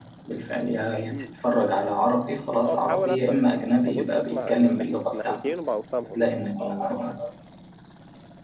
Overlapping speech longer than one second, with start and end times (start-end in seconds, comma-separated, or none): 2.6-5.5